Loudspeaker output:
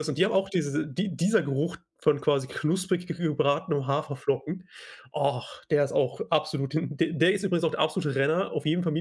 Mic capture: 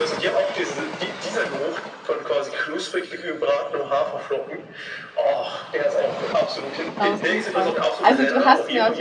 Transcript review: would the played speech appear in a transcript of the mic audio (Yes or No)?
Yes